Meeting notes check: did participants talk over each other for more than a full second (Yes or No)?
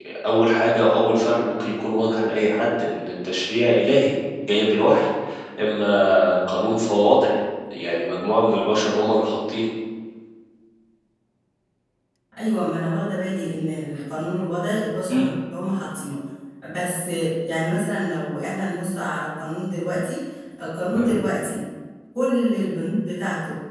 No